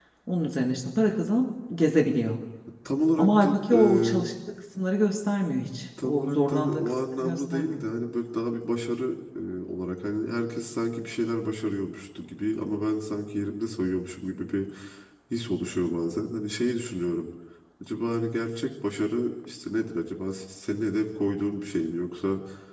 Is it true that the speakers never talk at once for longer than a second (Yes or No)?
No